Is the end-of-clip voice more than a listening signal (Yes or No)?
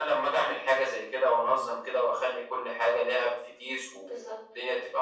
No